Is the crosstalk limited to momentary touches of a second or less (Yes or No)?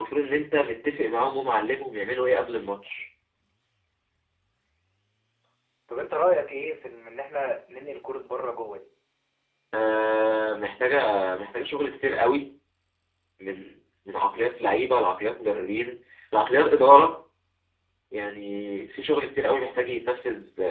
Yes